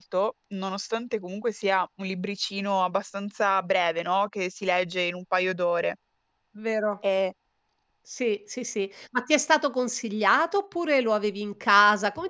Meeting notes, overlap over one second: none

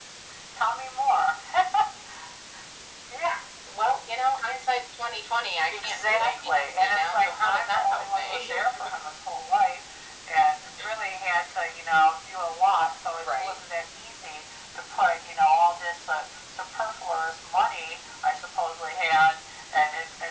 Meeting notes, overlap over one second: present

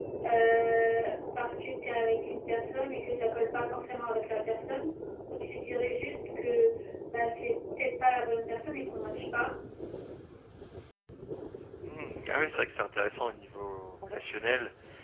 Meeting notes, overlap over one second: none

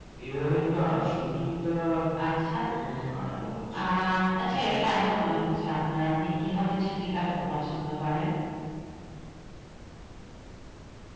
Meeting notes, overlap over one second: none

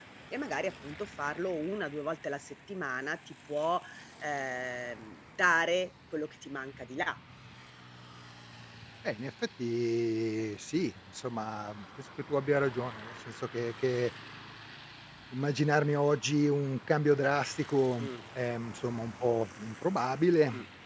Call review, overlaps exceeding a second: none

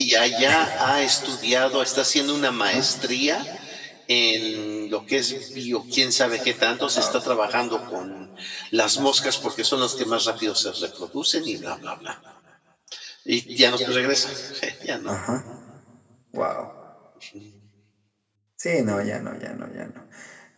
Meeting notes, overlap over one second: none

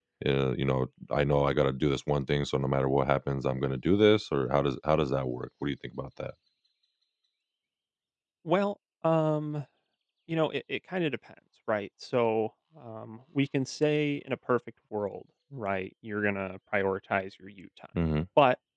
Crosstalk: none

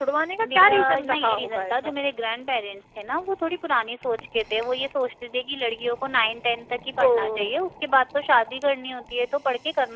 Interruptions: present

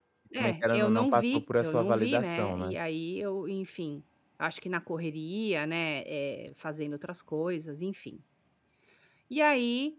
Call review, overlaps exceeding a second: present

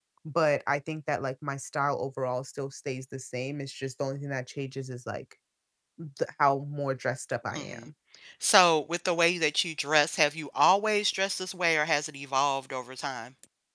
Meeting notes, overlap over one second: none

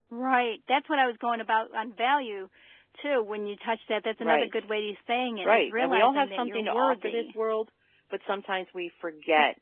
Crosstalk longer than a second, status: present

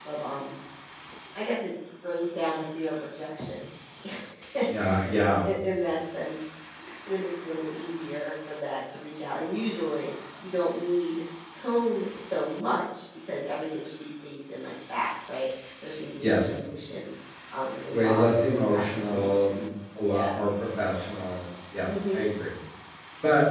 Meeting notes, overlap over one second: present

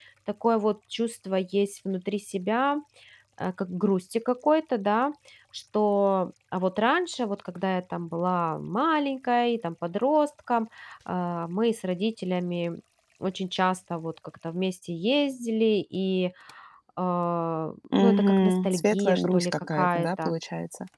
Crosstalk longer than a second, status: present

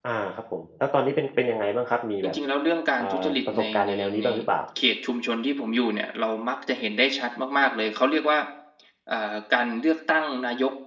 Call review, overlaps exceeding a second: present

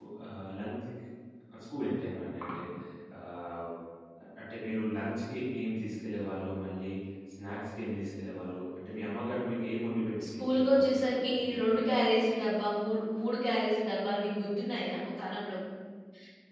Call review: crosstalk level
present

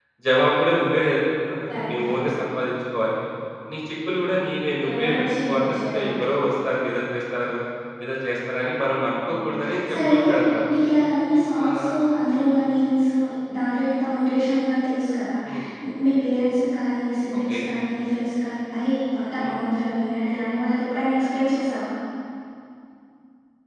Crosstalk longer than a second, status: present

